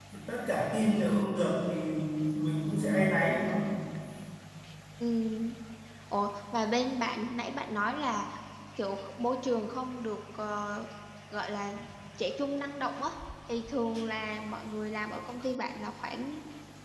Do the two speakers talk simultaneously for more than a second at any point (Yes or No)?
No